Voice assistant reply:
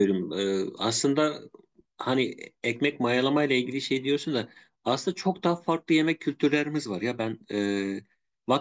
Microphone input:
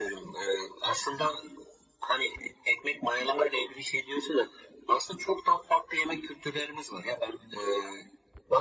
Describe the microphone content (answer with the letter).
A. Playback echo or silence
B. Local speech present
A